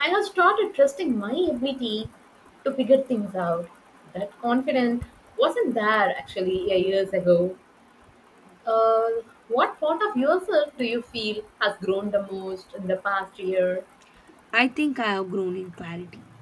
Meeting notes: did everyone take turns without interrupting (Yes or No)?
Yes